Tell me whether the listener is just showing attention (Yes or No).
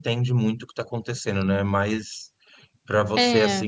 Yes